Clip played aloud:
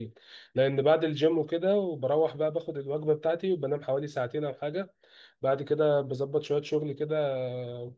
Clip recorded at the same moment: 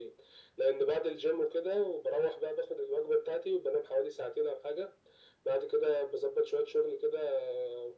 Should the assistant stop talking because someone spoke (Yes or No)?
No